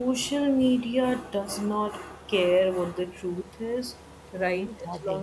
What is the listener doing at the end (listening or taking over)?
listening